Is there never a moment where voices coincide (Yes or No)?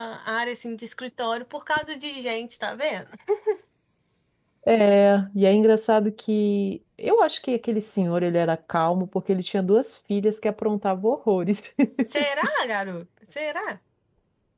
Yes